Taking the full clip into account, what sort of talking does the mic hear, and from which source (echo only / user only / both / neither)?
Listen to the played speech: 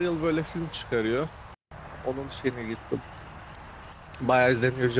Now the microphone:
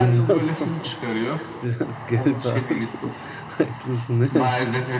both